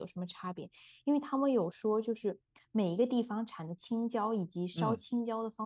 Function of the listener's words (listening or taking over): listening